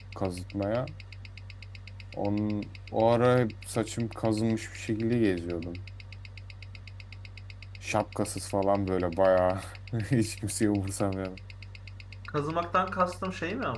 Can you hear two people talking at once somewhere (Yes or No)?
No